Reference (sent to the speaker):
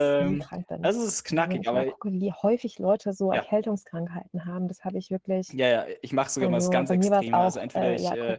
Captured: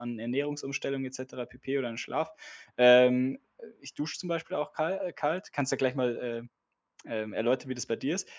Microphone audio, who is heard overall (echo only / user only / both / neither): user only